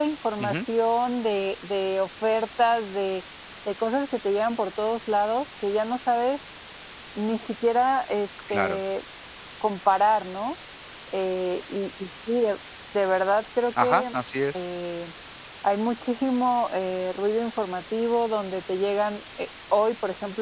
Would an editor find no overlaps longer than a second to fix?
Yes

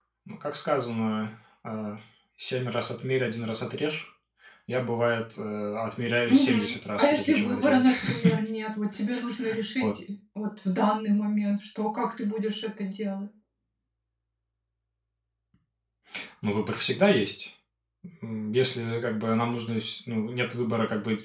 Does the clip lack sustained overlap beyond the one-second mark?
No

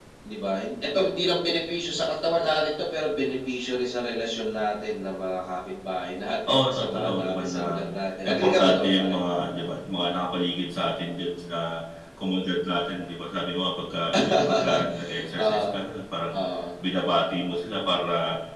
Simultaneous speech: Yes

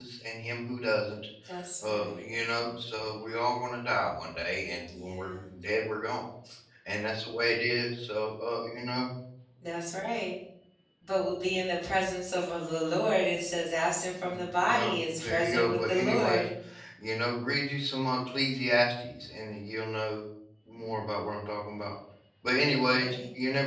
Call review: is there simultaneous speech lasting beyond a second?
Yes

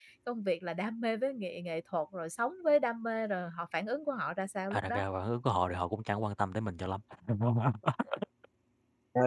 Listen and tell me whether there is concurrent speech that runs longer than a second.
No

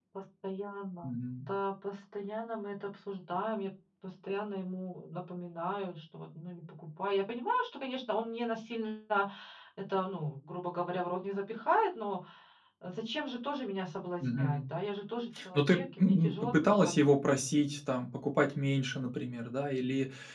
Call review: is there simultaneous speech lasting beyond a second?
Yes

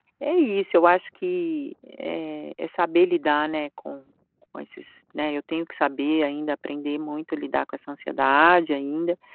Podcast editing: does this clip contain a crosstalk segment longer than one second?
No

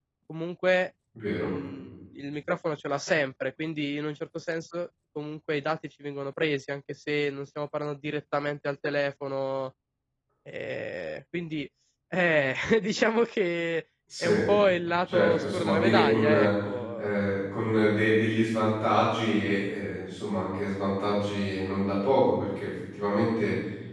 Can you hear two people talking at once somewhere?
Yes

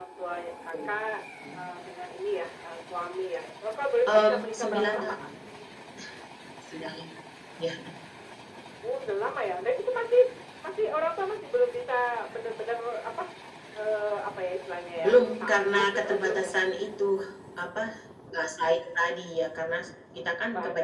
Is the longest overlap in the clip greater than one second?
Yes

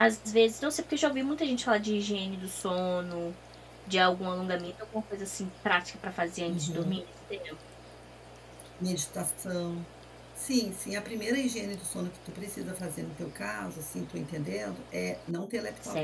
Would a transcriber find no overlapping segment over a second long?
Yes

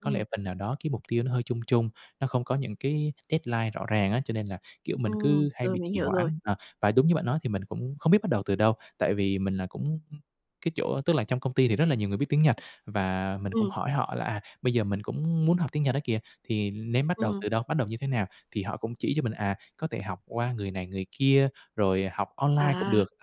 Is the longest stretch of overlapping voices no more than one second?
No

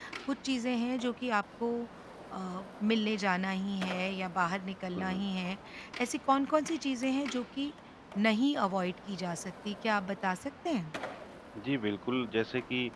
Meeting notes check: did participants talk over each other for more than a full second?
No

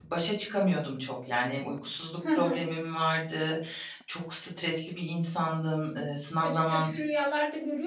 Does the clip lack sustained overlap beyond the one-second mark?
Yes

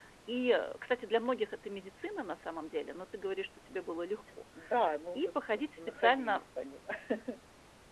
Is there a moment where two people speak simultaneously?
Yes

